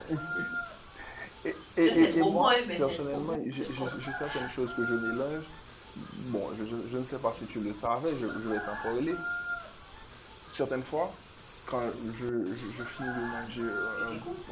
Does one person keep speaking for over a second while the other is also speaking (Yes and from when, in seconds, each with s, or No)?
Yes, from 1.8 s